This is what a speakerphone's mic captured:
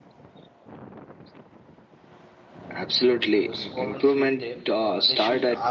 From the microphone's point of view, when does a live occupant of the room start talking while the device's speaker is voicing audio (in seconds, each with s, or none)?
3.4 s